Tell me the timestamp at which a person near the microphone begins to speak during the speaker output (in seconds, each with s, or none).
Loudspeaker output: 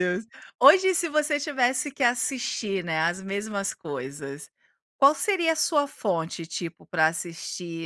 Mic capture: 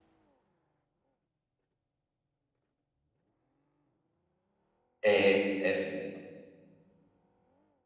5.0 s